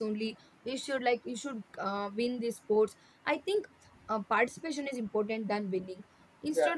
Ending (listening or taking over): listening